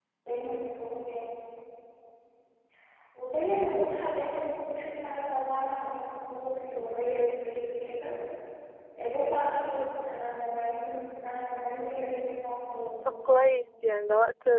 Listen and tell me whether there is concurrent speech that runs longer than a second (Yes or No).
No